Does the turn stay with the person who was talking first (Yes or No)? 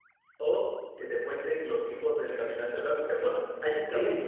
Yes